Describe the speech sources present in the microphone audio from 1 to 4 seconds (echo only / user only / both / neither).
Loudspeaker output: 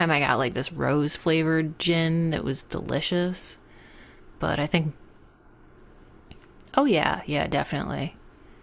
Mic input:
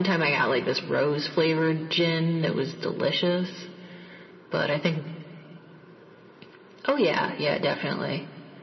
echo only